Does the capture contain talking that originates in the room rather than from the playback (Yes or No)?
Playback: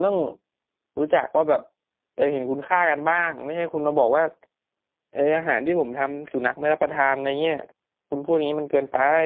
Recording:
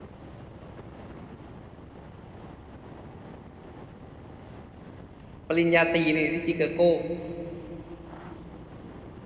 Yes